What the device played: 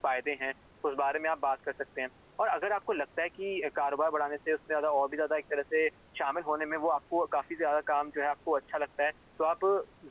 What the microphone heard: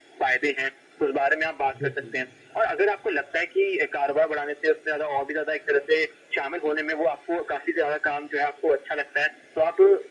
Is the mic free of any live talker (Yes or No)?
No